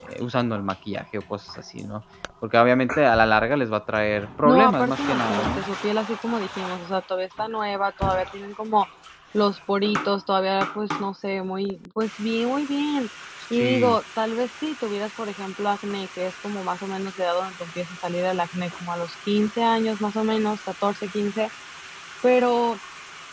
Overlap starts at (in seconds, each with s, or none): 4.4 s